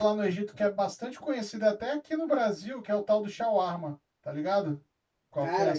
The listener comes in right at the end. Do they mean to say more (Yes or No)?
Yes